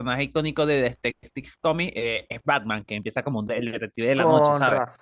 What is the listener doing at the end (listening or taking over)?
taking over